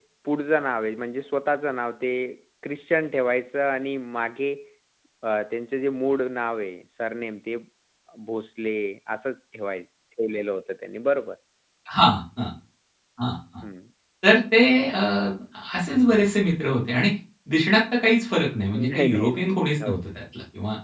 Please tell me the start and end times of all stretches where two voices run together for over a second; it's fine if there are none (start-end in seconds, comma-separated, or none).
18.8-20.0